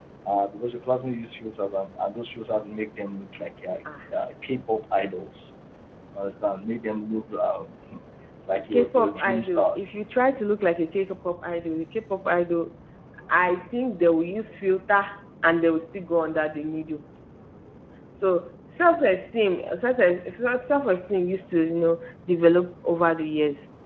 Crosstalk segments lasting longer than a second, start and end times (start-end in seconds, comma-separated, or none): 8.7-10.0